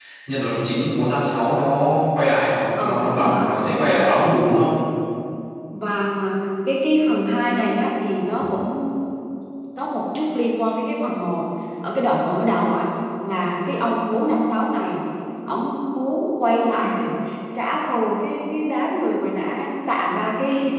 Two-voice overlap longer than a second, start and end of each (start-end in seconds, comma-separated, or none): 2.8-4.1